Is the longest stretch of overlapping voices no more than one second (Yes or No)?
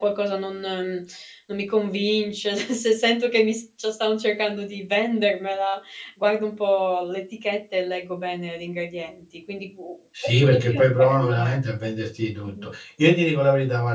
No